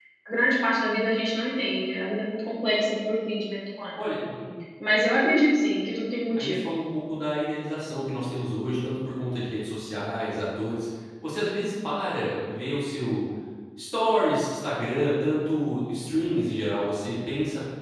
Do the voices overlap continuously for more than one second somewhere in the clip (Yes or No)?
No